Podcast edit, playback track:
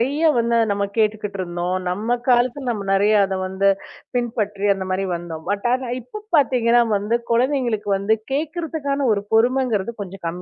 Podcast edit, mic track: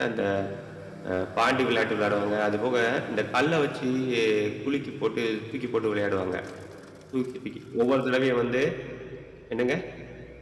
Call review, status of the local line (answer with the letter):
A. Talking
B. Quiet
A